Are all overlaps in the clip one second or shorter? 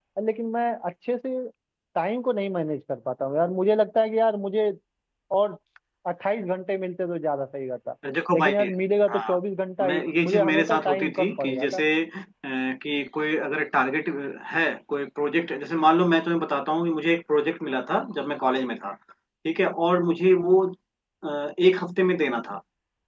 No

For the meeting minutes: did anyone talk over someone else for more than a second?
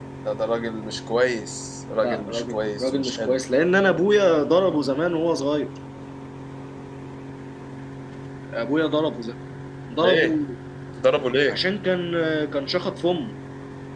Yes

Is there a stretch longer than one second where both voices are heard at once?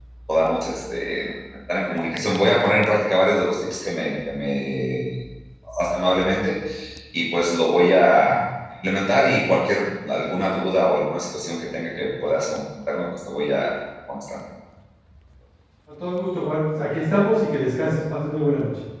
No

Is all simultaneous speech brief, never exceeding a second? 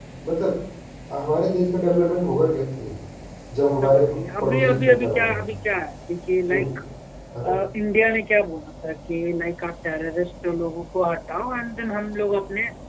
No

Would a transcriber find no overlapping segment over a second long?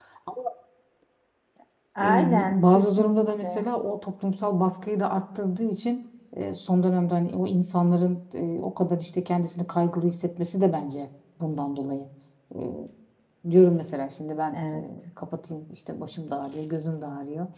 No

